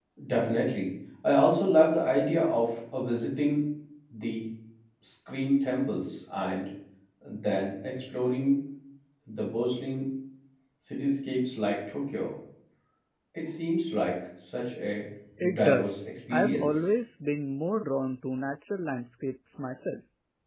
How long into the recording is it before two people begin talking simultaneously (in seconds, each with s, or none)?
15.5 s